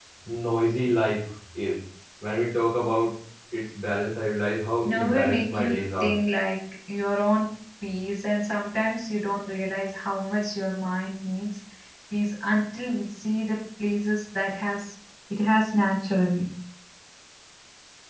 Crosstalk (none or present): present